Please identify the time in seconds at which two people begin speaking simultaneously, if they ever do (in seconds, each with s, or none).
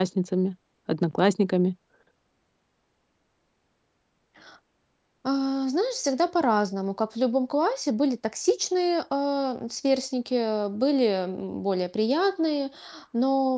none